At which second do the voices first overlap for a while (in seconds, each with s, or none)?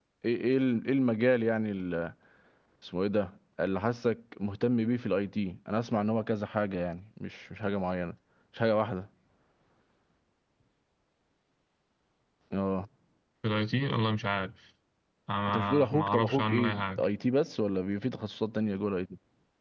15.5 s